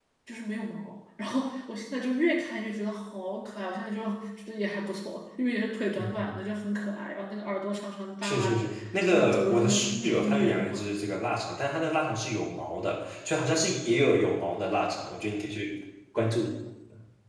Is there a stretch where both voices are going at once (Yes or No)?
Yes